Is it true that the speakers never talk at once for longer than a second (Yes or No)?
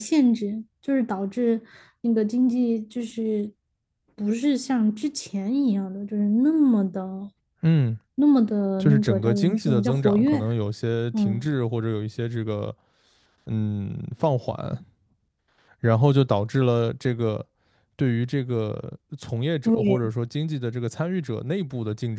No